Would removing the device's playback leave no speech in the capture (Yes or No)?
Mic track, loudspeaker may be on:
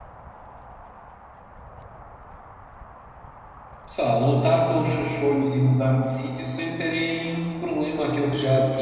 No